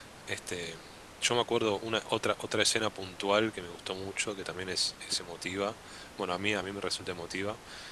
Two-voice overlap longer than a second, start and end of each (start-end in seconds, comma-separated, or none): none